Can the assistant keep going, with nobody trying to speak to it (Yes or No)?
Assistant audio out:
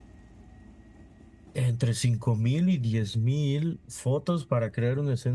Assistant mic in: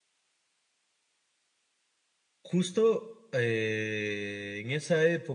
No